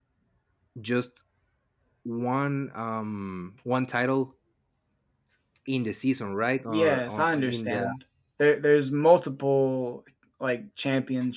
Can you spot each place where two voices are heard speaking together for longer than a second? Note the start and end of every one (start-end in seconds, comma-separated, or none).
6.7-7.9